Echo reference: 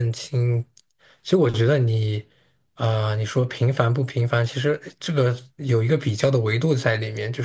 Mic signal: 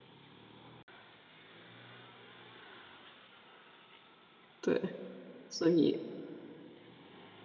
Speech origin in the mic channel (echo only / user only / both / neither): user only